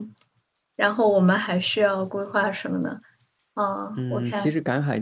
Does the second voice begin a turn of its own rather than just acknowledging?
Yes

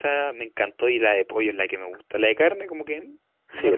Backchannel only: No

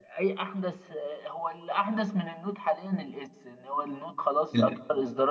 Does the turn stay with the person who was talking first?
Yes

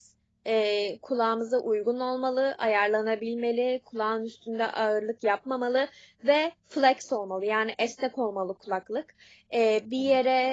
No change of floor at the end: Yes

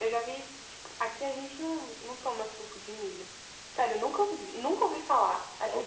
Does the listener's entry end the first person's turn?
Yes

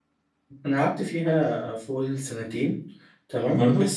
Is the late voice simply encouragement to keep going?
Yes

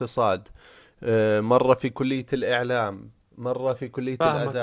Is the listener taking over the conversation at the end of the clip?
Yes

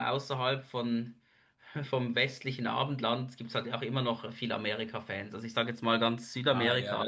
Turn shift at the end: Yes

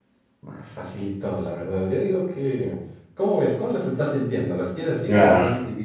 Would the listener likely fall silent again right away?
No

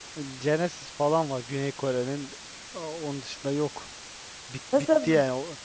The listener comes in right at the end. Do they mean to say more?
No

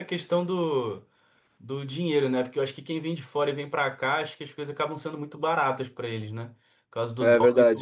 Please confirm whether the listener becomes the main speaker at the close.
Yes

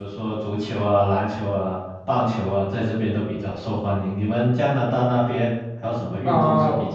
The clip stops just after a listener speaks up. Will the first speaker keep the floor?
No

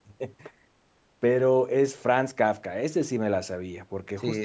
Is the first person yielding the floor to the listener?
Yes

